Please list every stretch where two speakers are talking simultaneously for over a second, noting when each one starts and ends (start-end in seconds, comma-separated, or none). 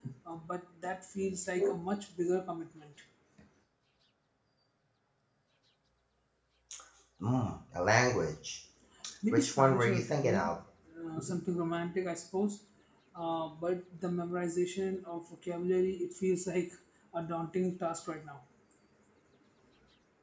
9.3-10.5